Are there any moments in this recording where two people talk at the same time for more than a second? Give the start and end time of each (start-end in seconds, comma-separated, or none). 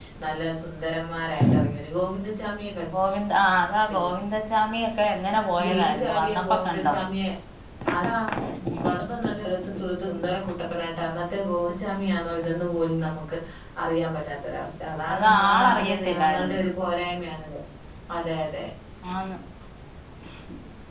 5.6-6.9, 15.1-16.6